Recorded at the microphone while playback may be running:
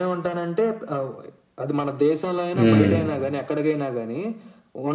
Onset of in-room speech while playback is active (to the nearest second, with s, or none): 3 s